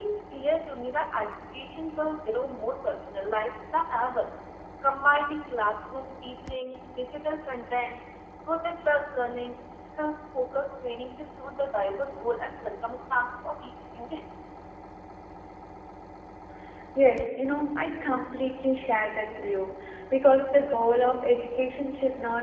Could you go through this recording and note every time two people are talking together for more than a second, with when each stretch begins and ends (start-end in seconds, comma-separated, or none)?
none